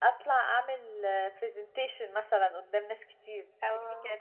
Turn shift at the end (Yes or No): No